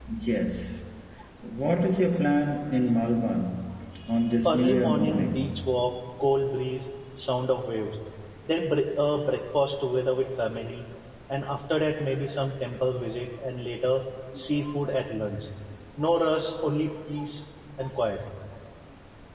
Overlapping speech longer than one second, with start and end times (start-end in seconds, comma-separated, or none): 4.5-5.7